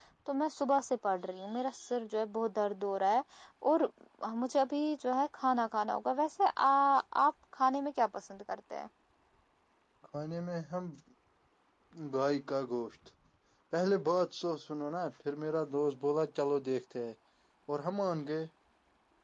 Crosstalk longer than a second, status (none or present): none